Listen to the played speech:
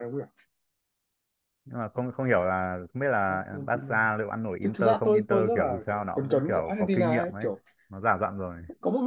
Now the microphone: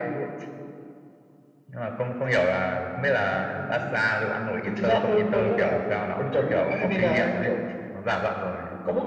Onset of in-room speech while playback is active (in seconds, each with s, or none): none